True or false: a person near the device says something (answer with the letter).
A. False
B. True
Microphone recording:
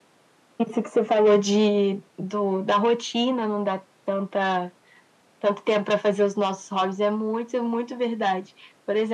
A